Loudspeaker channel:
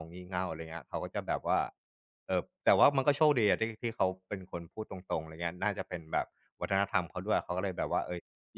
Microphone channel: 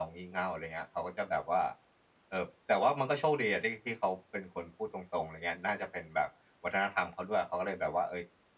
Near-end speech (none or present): none